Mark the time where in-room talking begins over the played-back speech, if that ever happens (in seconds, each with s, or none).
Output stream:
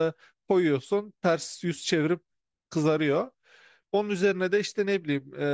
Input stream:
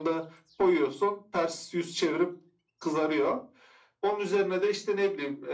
none